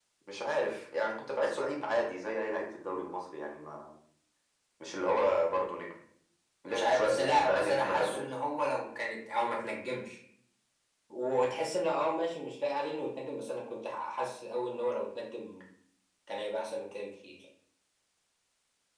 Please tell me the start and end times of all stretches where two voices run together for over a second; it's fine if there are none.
6.7-8.2

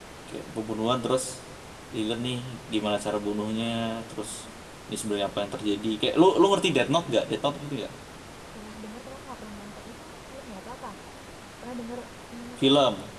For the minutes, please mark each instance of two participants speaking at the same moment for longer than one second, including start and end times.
none

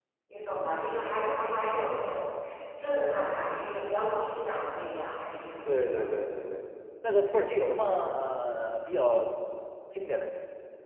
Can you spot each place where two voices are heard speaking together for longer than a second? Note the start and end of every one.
none

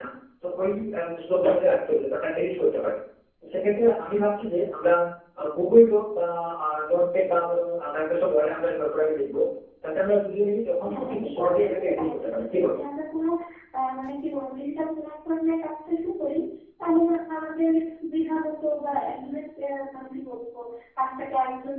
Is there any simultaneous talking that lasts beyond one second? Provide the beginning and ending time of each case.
10.9-12.7

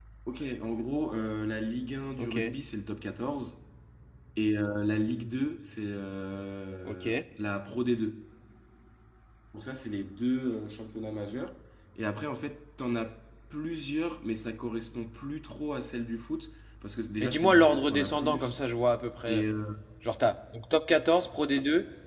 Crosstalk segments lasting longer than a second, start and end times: 17.2-18.6

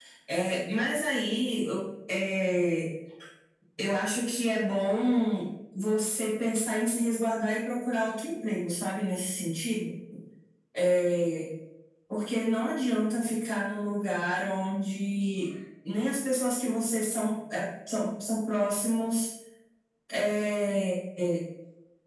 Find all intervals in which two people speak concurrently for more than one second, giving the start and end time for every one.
none

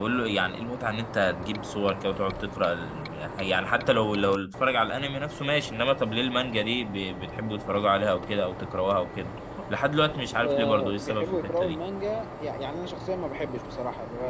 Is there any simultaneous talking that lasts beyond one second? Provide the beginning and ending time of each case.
10.4-11.8

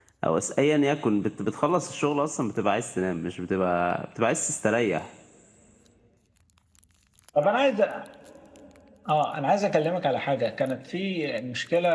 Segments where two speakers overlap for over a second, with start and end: none

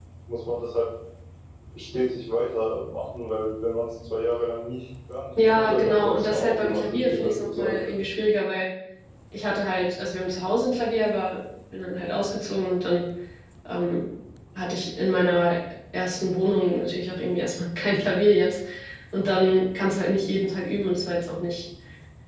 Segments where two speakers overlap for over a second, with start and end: 5.5-7.8

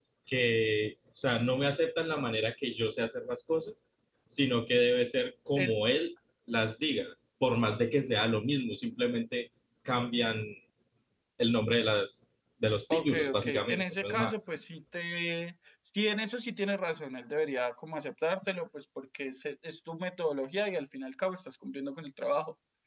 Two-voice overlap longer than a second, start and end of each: 12.9-14.3

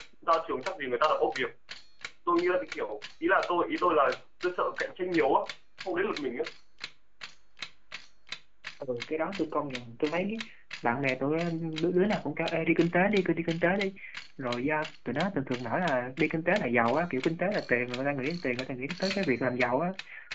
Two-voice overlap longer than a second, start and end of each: none

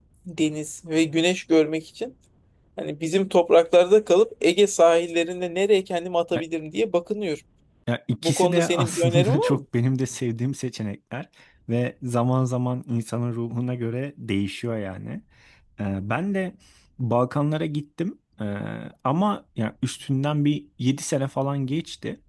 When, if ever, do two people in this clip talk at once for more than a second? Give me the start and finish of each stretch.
8.2-9.6

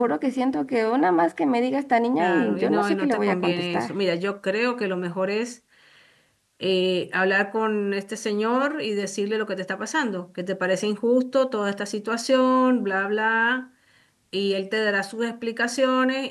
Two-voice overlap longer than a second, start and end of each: 2.2-3.9

